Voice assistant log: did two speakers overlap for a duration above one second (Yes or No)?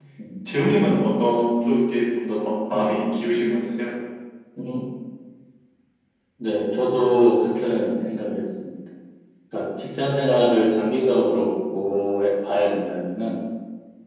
No